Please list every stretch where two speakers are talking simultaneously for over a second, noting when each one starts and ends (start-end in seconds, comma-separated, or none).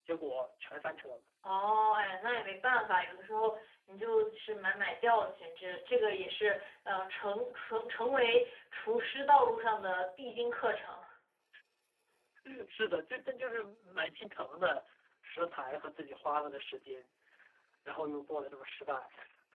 none